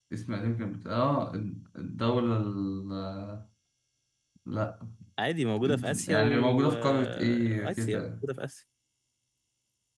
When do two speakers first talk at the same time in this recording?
6 s

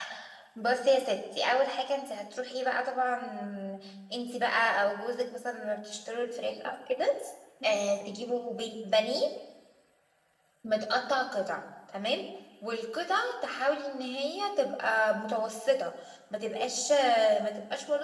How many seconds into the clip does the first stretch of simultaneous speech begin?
none

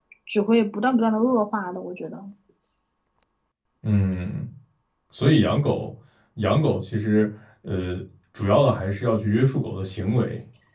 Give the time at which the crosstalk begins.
none

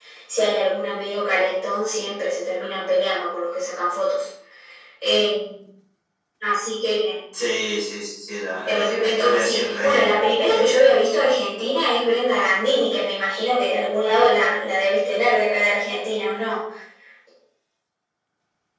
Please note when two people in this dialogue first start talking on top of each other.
9 s

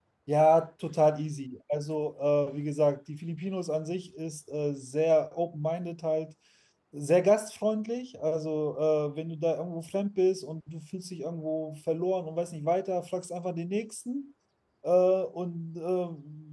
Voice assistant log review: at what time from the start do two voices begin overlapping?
none

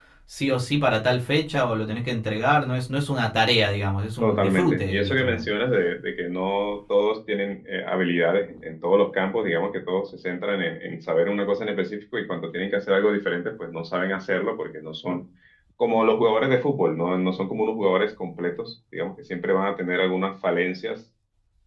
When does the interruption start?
4 s

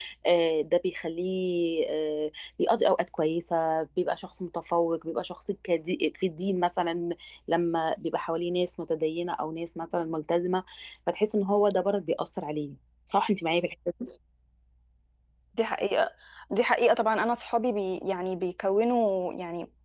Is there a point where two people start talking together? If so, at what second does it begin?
none

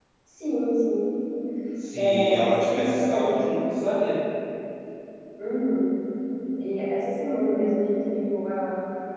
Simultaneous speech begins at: 2 s

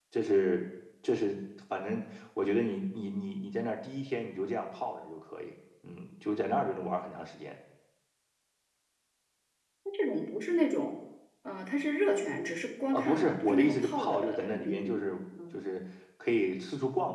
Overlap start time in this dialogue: 13 s

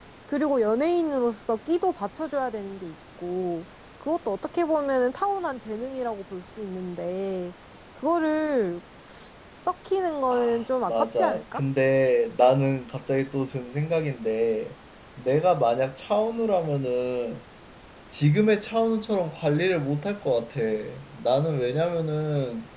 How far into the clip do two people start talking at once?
10 s

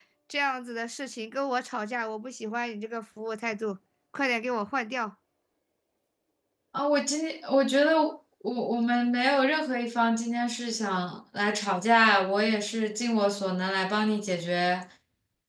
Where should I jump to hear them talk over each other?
none

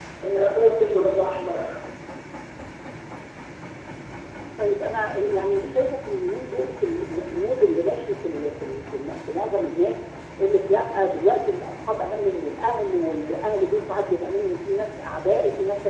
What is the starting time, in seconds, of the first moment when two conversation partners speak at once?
none

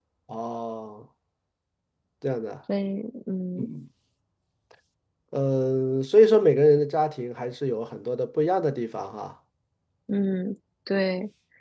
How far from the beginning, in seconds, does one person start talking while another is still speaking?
none

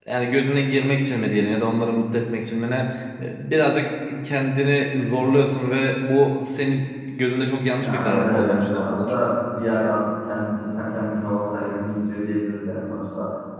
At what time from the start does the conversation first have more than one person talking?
8 s

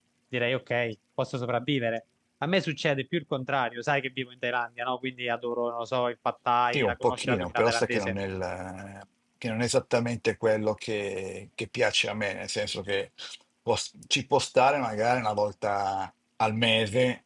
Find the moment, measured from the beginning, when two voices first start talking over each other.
7 s

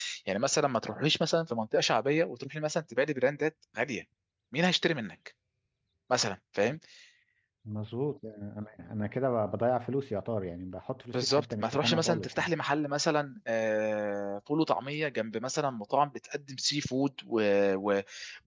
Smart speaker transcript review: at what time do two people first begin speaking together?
11 s

